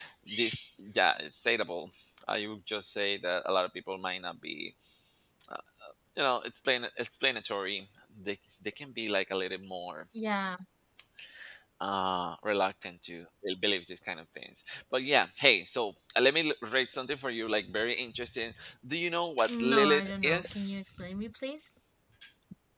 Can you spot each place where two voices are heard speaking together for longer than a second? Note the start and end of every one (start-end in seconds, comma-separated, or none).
19.5-20.8